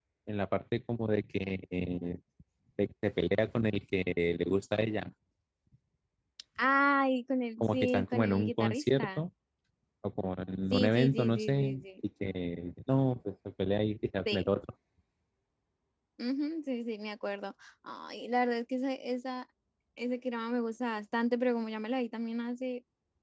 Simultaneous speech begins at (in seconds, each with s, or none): 7.6 s